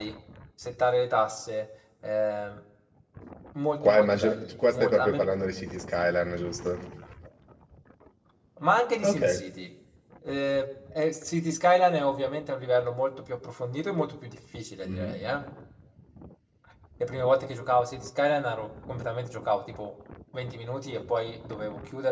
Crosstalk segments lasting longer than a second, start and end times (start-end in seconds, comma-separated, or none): 3.8-5.3